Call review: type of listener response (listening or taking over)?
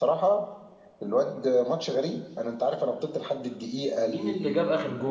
taking over